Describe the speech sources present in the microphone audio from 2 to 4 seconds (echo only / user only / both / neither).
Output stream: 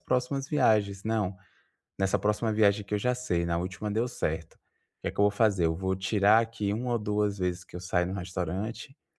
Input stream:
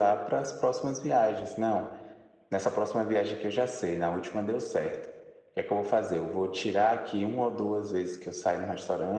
echo only